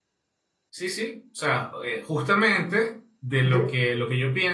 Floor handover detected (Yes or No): No